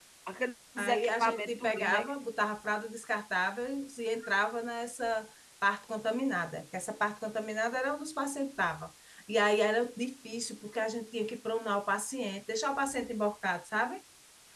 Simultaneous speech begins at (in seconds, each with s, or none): 0.8 s